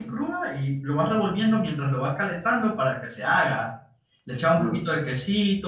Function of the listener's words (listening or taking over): listening